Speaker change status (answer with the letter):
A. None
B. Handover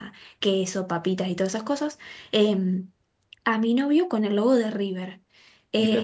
A